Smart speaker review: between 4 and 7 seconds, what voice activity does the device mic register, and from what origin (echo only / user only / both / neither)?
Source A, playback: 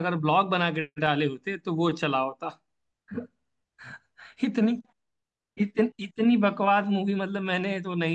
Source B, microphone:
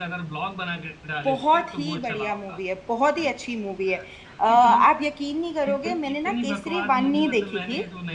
both